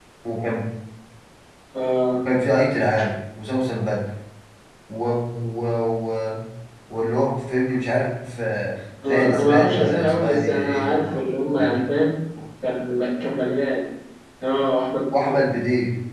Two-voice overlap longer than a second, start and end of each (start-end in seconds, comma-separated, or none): 9.1-11.0